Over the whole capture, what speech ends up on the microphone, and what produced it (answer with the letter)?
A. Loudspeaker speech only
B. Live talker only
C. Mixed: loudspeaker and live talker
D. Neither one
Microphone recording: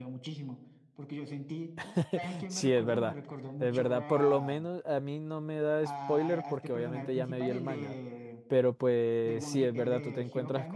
C